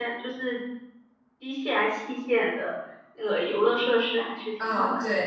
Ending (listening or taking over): taking over